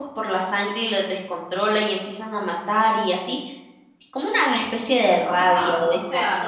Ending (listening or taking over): taking over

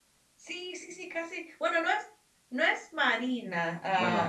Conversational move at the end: taking over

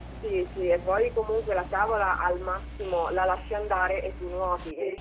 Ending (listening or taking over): listening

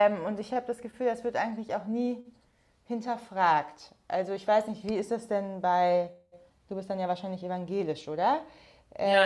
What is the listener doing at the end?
taking over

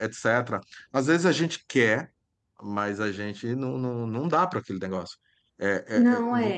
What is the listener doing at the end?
listening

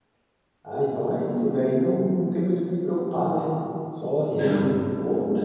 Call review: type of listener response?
listening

